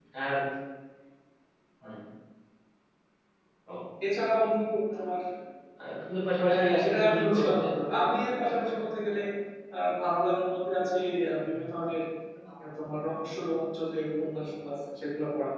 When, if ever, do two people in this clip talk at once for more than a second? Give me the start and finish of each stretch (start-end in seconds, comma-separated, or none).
6.5-7.7